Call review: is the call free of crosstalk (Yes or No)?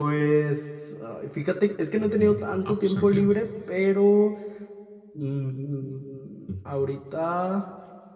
No